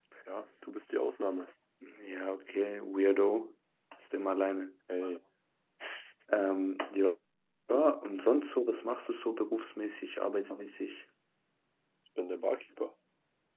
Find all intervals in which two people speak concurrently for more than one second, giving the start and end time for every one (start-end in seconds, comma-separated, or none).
none